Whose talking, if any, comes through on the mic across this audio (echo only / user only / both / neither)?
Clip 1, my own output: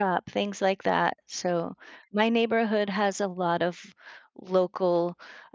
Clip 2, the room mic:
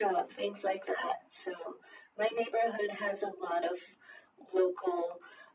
echo only